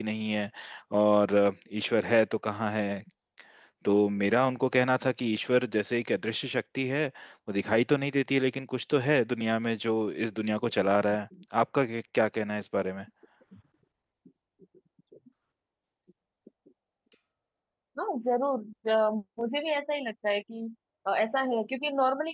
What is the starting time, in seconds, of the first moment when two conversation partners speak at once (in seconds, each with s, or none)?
none